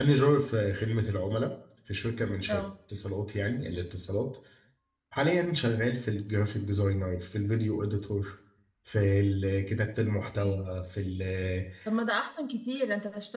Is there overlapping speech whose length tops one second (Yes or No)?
No